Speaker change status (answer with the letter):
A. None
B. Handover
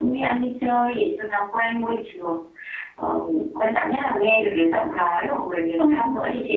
A